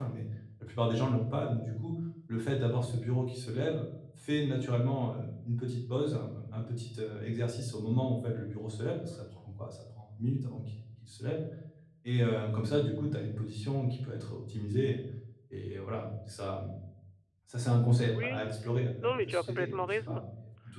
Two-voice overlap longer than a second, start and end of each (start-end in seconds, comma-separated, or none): 19.0-20.2